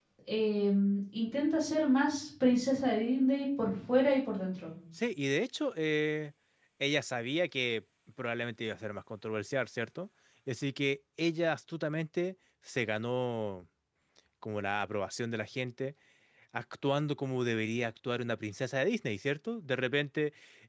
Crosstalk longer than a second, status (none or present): none